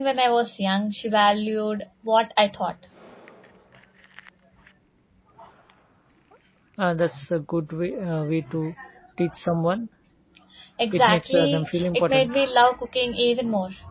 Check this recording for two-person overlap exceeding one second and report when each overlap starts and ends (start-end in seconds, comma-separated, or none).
10.9-12.4